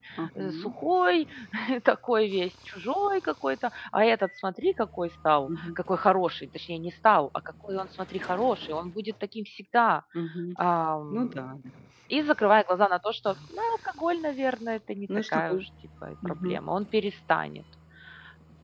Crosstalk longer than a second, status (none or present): none